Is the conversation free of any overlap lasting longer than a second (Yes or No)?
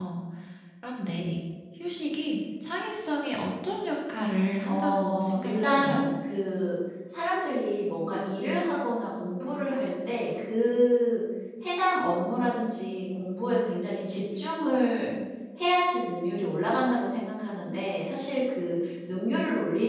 No